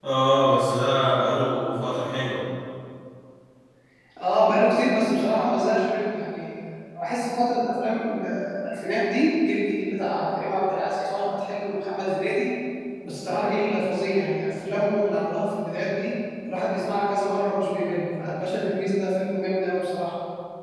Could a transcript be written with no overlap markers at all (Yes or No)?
Yes